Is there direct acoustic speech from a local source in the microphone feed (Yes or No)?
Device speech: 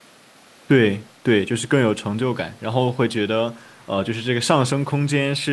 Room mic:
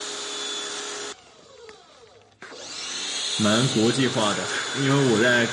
Yes